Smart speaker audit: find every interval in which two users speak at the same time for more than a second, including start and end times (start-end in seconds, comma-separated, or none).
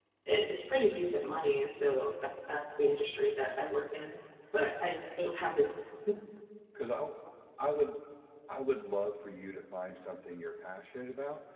none